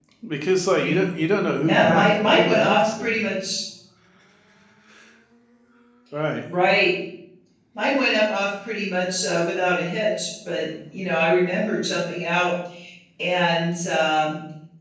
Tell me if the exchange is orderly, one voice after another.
No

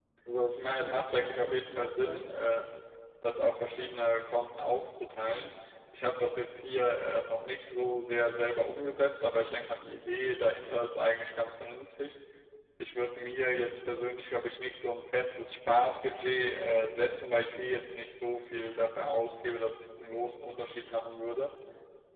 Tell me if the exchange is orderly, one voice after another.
No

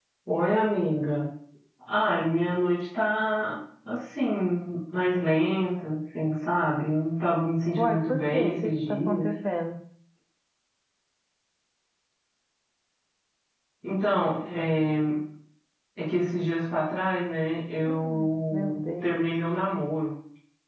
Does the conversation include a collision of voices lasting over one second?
Yes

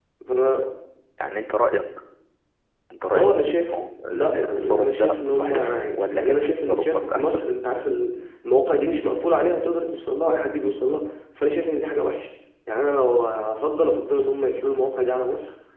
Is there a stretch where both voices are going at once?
Yes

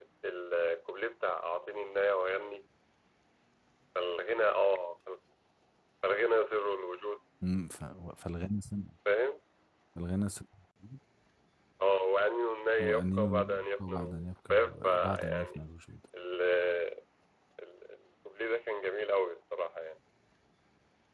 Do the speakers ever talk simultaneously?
Yes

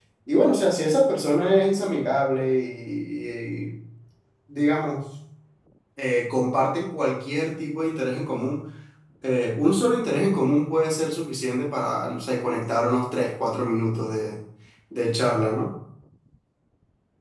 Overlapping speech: No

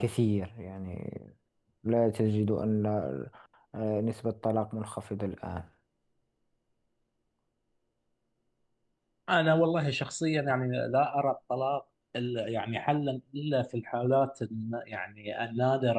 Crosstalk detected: No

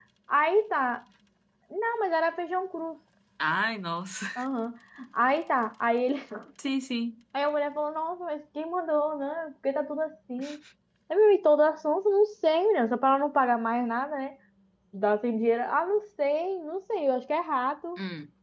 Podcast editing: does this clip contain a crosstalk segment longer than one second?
No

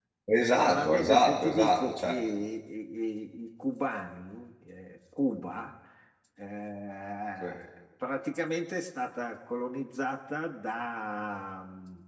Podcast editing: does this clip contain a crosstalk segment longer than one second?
Yes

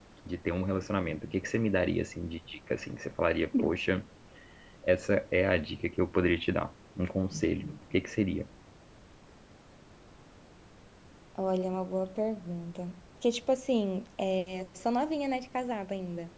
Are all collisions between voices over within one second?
Yes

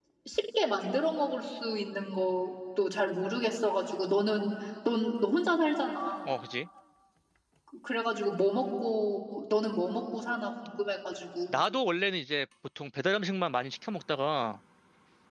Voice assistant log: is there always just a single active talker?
Yes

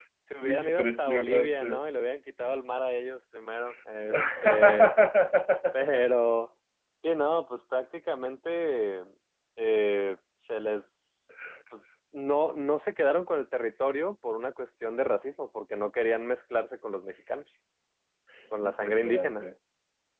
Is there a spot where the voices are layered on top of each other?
Yes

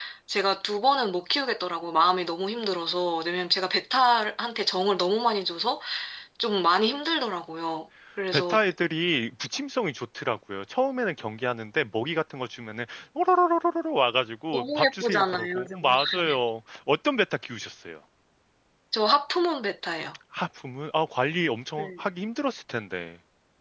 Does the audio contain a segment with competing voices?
Yes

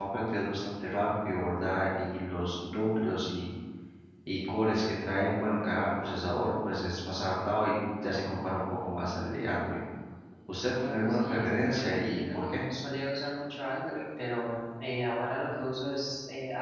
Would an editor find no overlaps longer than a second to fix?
No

